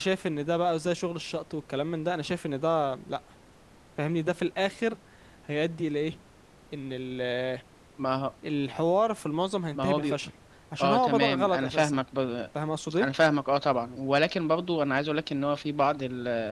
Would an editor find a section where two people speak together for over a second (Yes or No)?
Yes